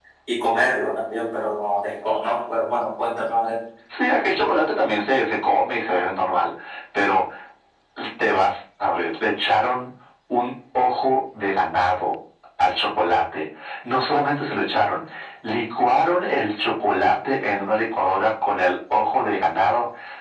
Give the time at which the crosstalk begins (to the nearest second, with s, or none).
none